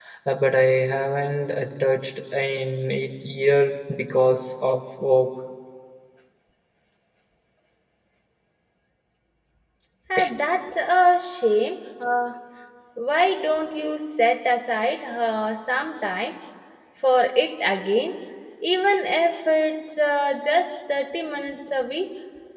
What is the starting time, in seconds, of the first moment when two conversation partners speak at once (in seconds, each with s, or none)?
none